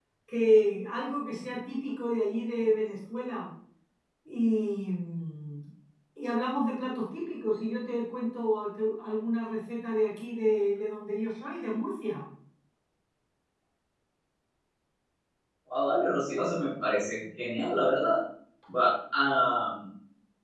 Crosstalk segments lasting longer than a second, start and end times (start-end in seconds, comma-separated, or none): none